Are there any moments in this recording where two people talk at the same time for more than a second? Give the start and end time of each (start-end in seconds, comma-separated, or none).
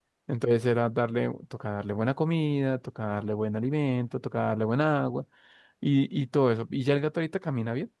none